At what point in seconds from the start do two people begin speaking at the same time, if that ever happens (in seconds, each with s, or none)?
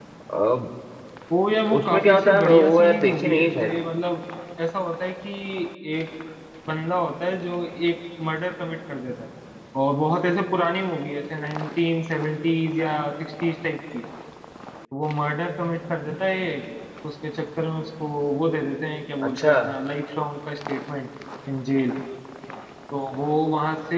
1.8 s